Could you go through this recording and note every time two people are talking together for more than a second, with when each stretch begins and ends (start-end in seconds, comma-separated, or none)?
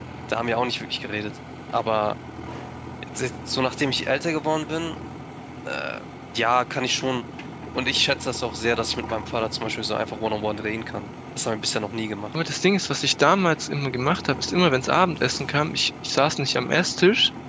none